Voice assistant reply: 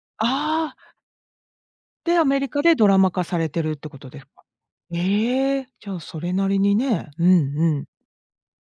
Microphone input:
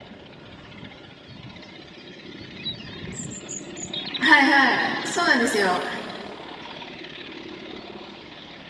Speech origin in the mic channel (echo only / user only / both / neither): user only